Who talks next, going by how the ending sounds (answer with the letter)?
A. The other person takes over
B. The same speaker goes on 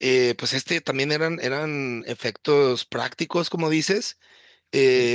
B